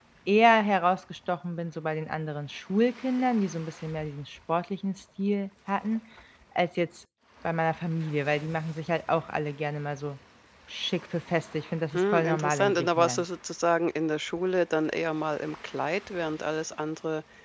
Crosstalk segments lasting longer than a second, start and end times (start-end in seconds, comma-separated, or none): 11.9-13.2